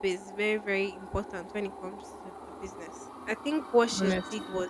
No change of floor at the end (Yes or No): Yes